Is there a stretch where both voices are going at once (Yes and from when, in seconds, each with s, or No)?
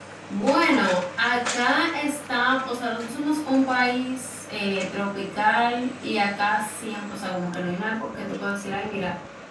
No